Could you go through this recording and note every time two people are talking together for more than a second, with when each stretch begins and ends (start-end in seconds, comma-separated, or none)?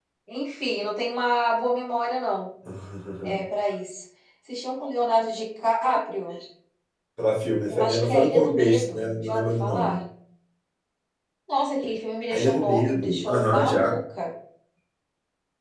7.7-10.0, 12.3-14.0